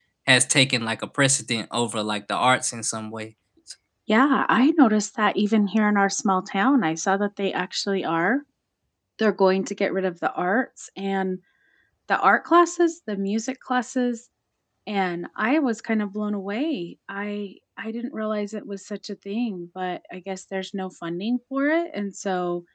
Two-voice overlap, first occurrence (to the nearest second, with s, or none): none